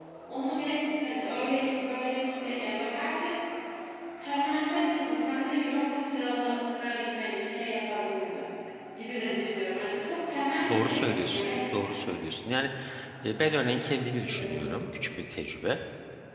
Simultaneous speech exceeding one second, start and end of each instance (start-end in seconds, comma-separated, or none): 10.7-12.0